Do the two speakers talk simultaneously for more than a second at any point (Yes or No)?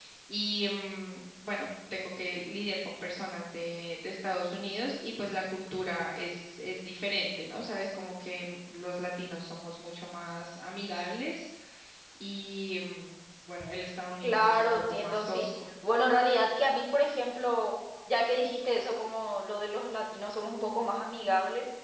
Yes